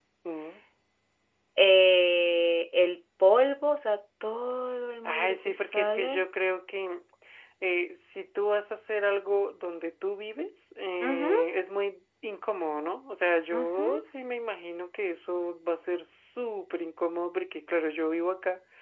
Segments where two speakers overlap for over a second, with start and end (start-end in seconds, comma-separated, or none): 5.0-6.2